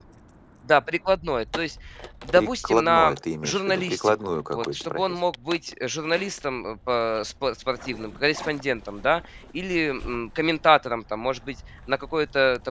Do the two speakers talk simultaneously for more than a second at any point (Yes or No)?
Yes